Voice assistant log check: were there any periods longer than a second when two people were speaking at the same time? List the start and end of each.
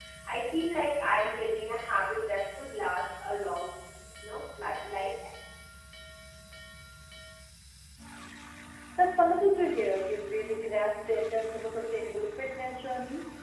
none

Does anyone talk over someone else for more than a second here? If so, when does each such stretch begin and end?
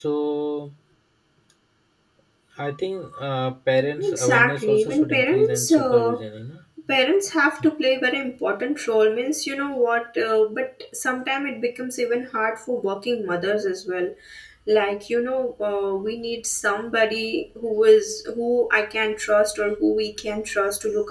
4.0-6.1

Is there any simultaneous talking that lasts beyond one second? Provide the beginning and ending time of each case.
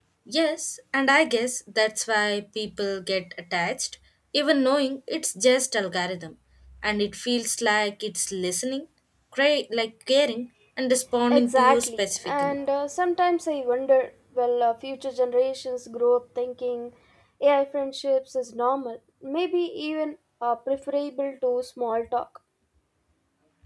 11.3-12.6

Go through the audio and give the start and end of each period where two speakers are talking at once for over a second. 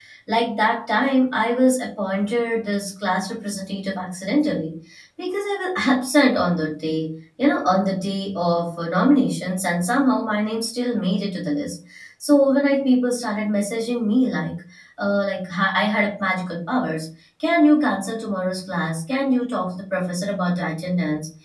none

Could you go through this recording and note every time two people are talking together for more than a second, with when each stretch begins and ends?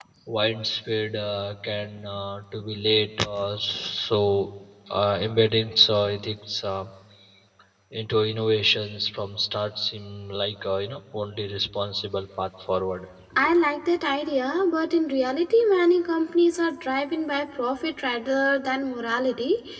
none

